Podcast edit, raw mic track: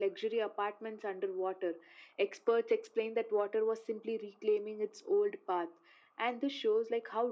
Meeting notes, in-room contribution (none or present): none